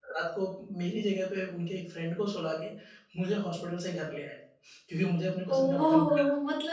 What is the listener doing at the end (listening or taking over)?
taking over